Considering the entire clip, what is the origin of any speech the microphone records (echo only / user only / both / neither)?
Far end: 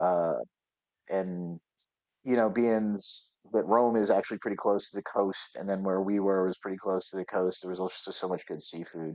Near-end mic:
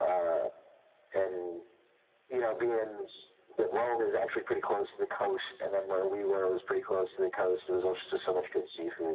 echo only